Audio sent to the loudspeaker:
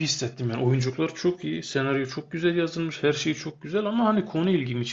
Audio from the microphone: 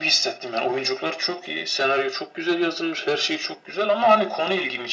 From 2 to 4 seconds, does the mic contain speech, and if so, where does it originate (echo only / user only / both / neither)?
echo only